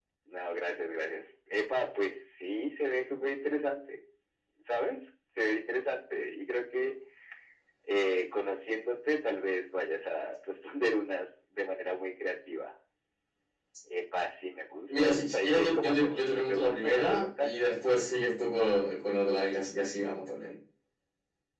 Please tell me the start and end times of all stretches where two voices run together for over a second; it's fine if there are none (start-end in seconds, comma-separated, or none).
14.9-17.6